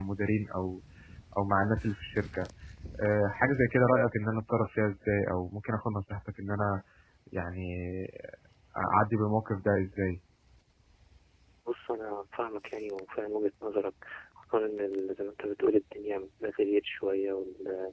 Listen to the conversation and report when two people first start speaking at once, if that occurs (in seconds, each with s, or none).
none